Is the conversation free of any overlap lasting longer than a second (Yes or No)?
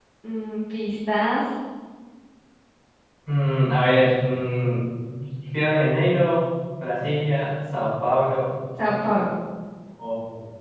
Yes